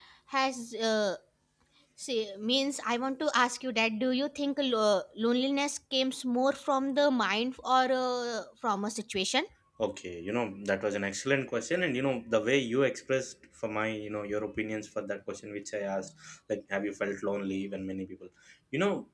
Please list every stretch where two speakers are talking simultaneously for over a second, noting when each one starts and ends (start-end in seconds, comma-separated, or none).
none